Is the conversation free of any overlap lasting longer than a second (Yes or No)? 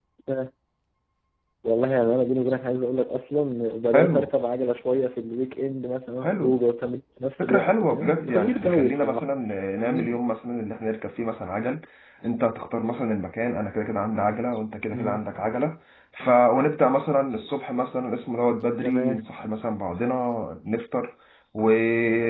No